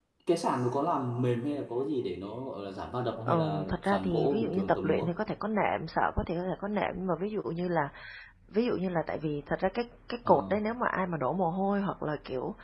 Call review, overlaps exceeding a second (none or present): present